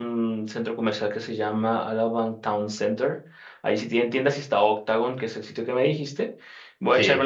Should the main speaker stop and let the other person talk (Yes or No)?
No